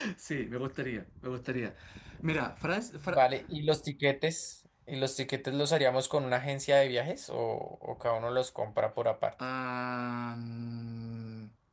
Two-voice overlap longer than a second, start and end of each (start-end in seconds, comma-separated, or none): none